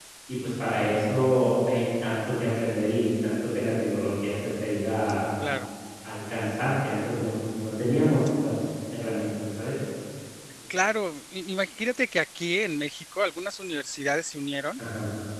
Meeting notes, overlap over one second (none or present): none